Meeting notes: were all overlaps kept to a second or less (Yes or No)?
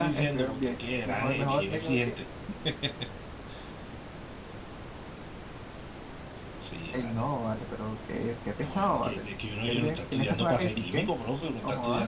No